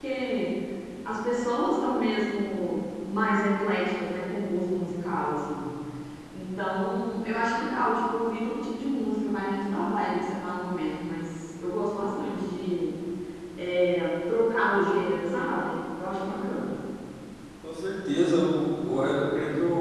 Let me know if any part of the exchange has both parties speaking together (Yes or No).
No